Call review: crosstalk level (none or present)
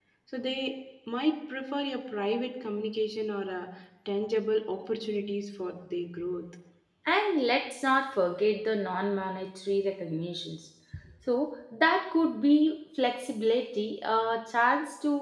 none